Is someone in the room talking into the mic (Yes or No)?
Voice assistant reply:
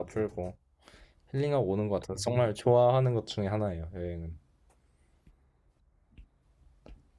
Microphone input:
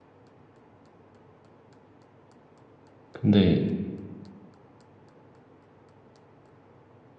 Yes